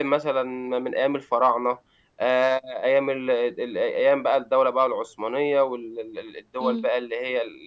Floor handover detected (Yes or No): No